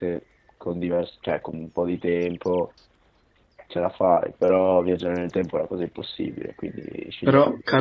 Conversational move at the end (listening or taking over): taking over